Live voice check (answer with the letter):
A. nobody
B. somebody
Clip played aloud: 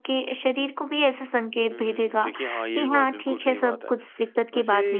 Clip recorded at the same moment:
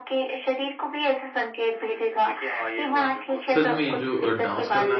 B